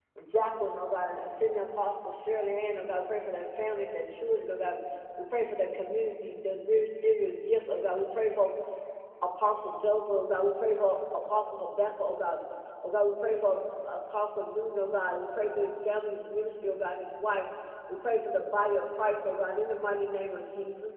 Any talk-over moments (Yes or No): No